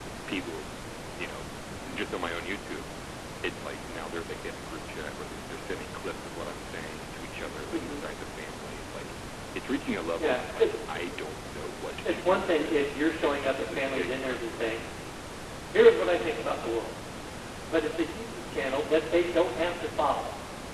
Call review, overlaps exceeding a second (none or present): present